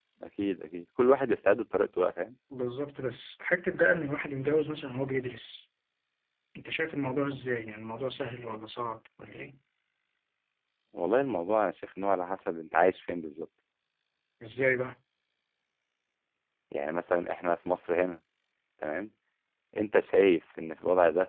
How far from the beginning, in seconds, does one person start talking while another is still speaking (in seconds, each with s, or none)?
none